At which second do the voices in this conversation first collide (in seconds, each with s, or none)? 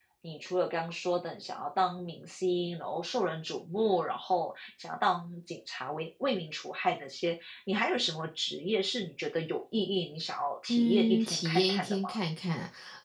10.7 s